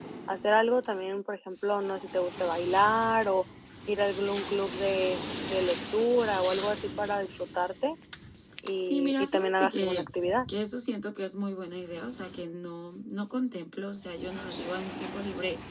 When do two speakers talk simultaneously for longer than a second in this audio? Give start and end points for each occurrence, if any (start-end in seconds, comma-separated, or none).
8.8-10.1